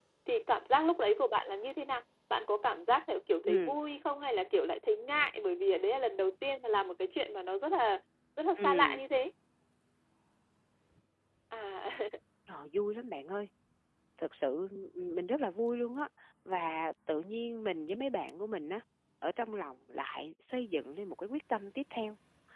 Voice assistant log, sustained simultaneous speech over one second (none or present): none